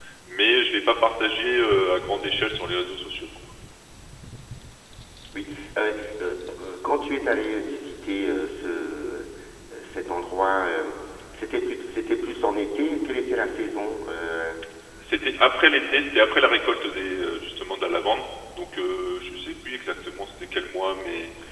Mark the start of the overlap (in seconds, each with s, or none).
none